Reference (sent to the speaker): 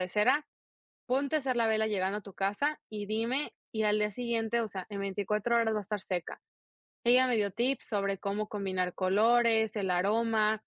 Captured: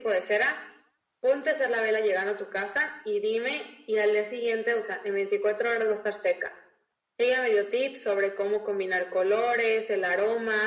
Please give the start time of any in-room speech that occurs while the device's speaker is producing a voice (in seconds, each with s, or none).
none